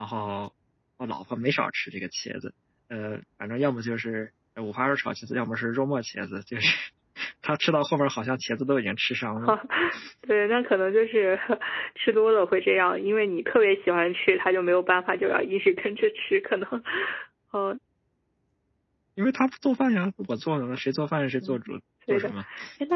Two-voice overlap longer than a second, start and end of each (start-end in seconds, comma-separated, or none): none